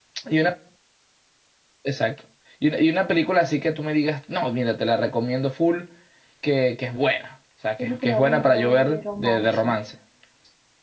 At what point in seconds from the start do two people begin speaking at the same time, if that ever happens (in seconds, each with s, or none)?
7.8 s